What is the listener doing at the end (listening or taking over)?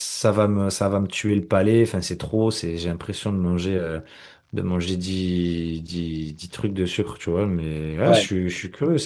listening